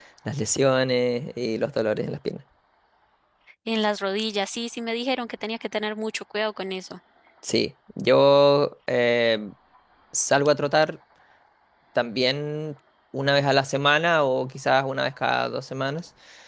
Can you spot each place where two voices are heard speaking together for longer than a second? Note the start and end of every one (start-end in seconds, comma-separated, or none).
none